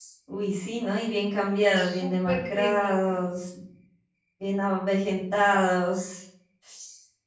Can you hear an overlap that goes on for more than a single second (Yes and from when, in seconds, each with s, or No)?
Yes, from 1.8 s